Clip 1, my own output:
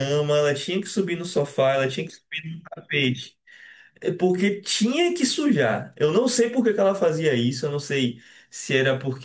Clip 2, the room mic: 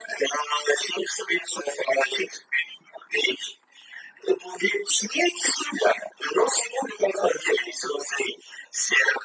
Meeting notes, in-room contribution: none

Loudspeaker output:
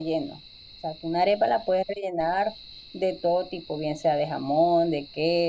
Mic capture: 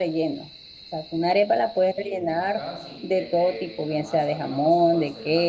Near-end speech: present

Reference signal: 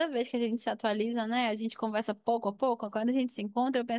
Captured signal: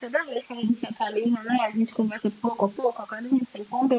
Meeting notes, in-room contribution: none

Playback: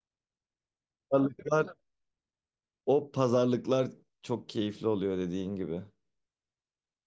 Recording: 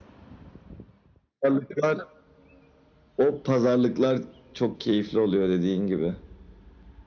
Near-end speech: none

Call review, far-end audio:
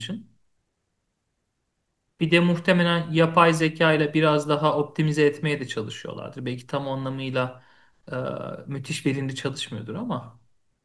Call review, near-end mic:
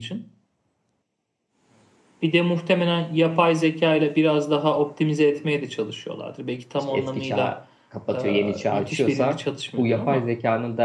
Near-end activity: present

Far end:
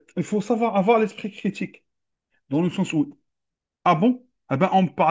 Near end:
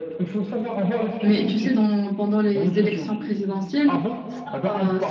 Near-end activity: present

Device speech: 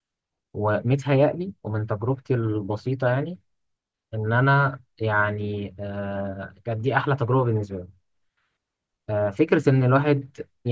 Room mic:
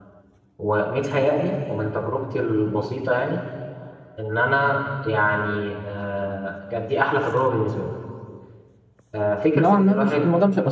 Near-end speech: present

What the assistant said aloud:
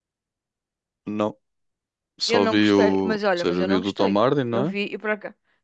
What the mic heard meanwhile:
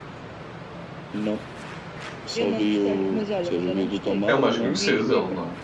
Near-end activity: present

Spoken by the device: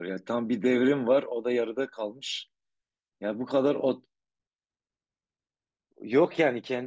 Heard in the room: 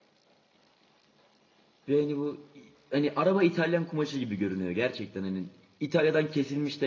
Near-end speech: present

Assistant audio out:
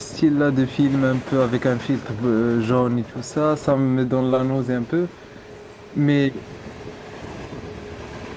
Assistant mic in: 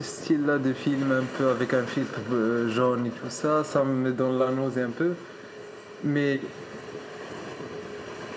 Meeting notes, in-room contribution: none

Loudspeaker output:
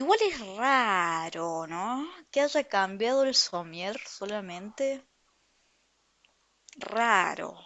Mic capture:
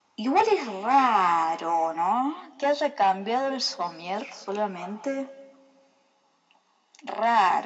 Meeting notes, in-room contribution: none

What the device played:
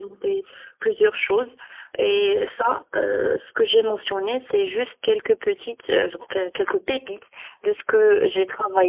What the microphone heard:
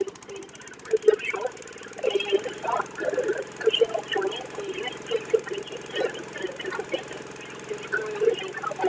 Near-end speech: none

